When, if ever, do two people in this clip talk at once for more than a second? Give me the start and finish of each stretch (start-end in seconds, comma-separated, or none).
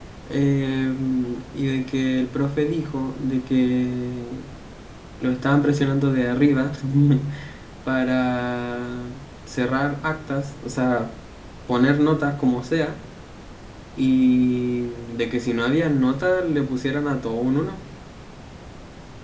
none